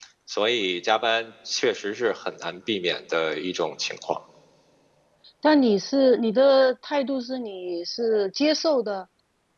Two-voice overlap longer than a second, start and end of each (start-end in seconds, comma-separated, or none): none